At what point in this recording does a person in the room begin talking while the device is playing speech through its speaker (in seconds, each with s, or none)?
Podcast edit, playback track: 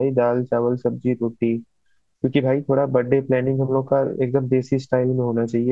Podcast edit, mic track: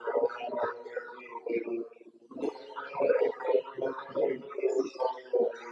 none